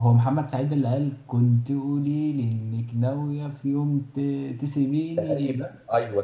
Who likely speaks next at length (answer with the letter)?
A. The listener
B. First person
A